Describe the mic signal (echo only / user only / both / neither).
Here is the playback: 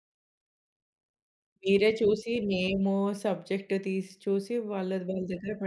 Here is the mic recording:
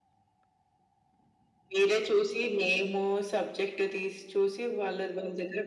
echo only